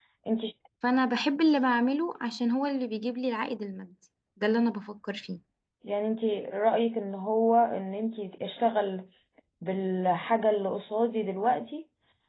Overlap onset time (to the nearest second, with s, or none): none